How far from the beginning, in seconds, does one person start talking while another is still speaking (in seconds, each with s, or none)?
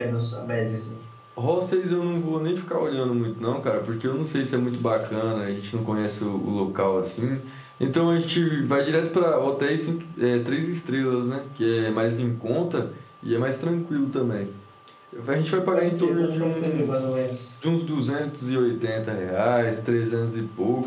15.7 s